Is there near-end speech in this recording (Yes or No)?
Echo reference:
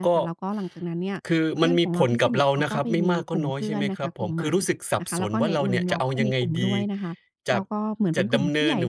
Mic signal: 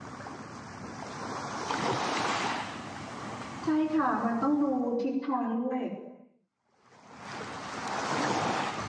Yes